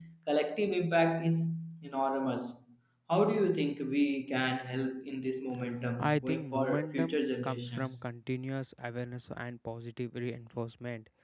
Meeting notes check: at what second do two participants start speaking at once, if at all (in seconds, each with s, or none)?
6.0 s